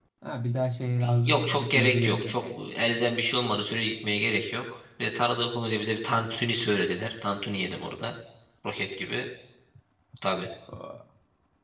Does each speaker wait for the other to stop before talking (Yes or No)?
No